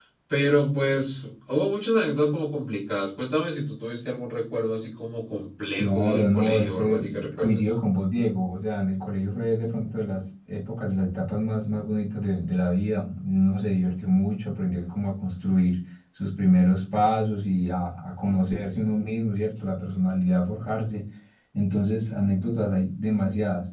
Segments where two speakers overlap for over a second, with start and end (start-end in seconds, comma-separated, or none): 5.7-7.7